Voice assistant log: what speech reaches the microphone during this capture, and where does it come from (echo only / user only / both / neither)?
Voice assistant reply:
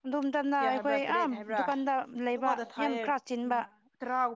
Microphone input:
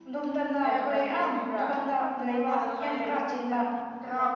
both